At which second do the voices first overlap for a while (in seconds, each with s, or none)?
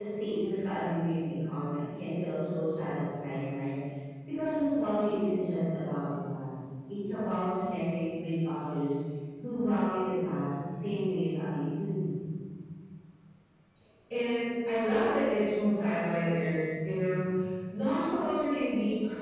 none